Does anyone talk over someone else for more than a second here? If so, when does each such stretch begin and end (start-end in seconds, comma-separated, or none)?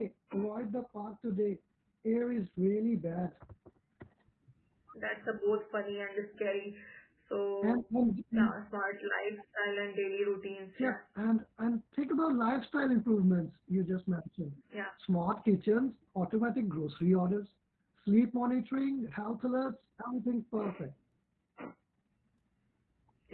none